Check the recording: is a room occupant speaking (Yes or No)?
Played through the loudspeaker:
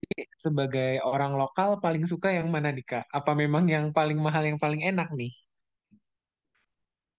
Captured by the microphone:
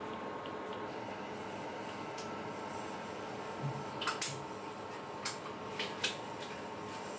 No